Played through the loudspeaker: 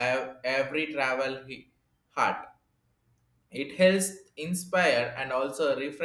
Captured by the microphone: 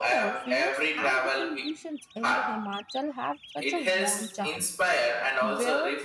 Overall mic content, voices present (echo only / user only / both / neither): both